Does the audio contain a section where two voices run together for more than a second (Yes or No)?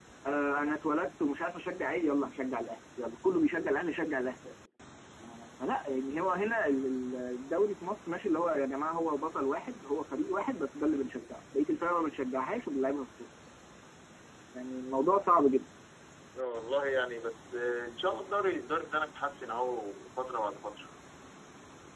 No